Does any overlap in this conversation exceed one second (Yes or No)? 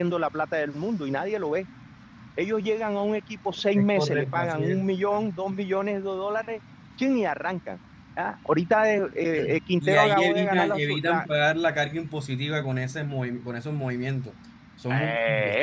Yes